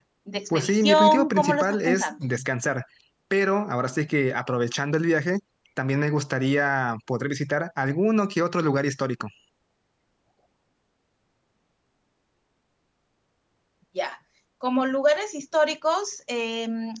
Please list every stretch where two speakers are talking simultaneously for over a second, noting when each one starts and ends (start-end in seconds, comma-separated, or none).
0.5-2.1